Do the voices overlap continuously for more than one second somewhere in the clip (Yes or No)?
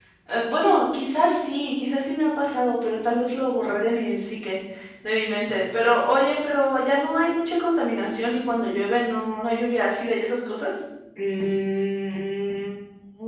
No